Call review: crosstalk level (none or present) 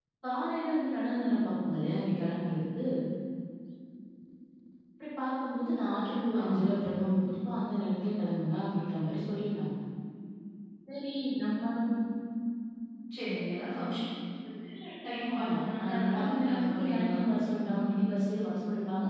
present